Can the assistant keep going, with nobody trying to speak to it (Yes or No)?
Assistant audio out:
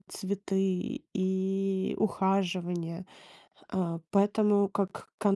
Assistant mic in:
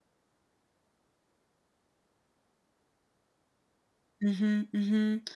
No